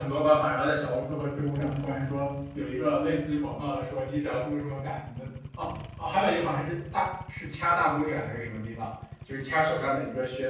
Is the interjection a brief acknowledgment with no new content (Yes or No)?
Yes